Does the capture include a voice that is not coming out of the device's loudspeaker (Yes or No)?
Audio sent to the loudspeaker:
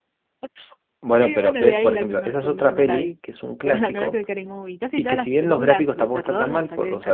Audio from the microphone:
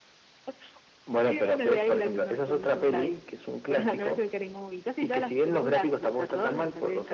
No